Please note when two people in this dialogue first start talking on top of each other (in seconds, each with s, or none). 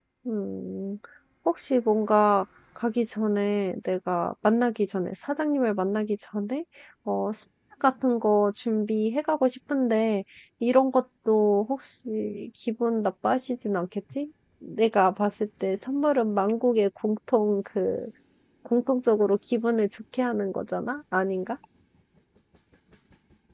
none